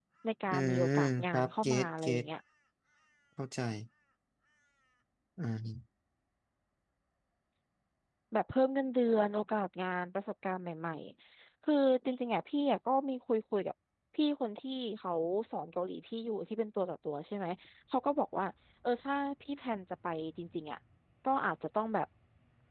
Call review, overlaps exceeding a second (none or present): present